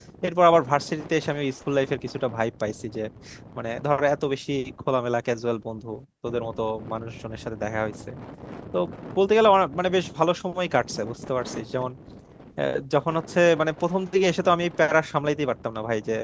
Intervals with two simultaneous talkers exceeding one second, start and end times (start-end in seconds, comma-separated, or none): none